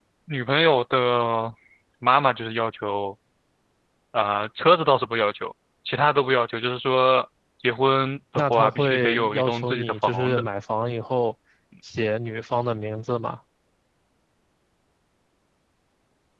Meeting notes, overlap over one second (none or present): present